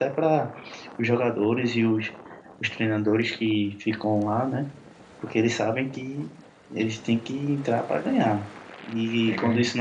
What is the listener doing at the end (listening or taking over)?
listening